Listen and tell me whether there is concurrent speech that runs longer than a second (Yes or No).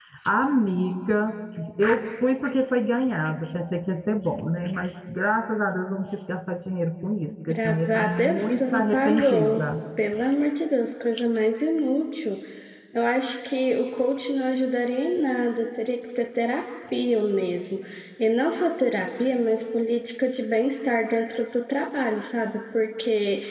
Yes